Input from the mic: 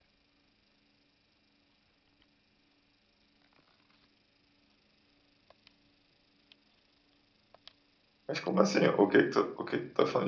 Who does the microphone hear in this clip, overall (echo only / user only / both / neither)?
user only